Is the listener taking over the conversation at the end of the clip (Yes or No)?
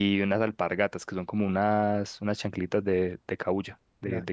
Yes